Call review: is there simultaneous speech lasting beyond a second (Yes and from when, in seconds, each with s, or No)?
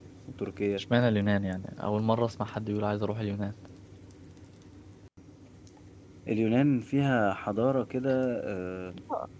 No